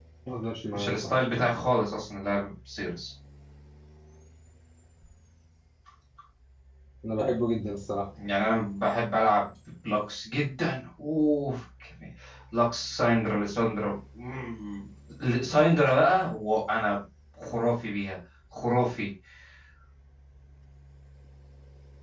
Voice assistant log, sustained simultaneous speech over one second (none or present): none